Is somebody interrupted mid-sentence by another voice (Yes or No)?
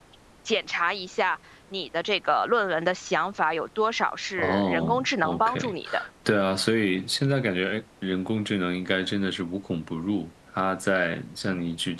Yes